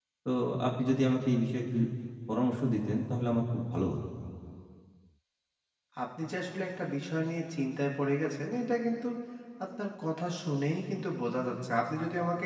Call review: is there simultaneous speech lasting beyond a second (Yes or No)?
No